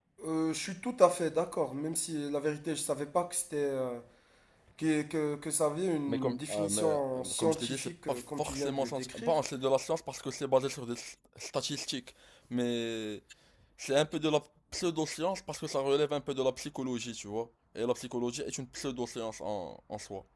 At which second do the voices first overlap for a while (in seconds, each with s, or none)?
6.1 s